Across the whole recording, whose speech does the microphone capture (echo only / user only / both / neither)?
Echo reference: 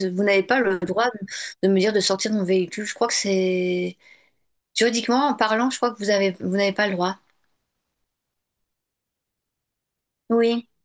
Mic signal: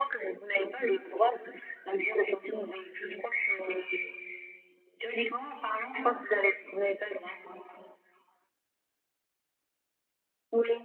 echo only